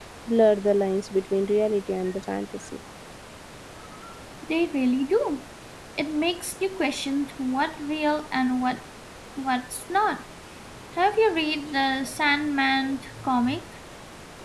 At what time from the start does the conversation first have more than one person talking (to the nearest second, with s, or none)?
none